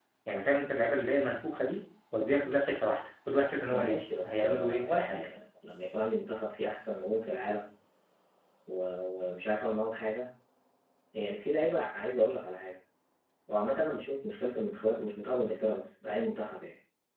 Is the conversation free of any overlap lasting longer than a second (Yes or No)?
No